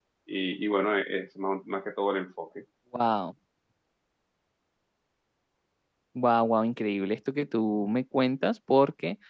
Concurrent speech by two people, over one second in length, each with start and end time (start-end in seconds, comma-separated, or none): none